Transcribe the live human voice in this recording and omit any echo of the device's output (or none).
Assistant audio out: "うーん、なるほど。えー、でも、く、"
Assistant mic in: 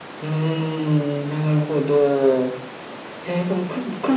none